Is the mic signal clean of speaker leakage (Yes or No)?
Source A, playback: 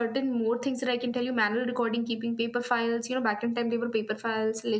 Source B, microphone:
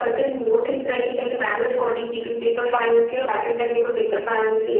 No